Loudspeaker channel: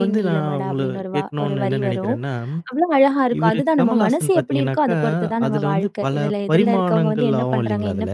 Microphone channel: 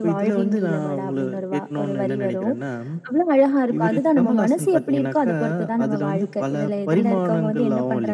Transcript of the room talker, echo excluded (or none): none